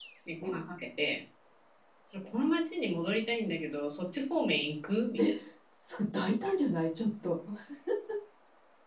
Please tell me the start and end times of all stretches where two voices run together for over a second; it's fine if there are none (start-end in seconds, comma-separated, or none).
none